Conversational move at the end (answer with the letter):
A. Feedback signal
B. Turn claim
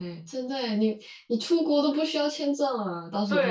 B